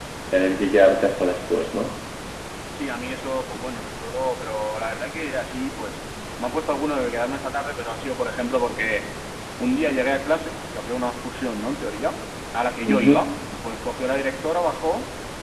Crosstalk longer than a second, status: none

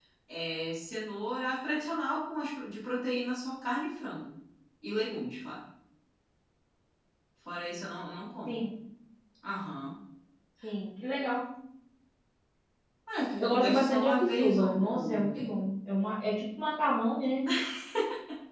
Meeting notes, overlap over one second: present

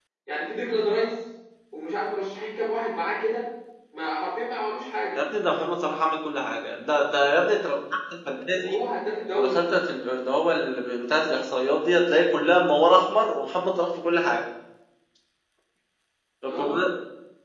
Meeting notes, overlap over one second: none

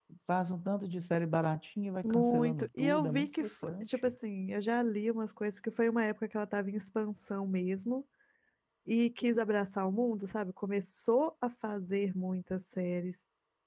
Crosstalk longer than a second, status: present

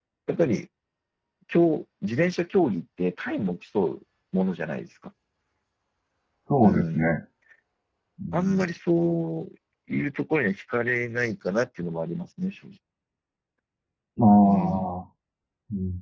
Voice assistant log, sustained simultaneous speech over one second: none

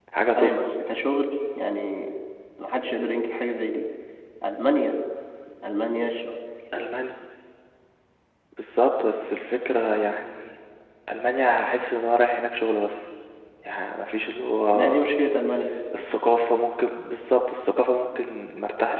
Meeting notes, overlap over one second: none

